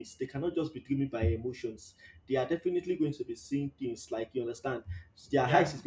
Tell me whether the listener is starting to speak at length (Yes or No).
No